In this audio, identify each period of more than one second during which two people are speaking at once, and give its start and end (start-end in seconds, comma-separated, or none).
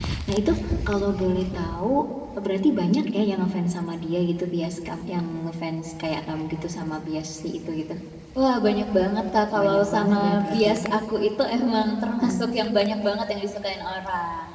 9.6-10.8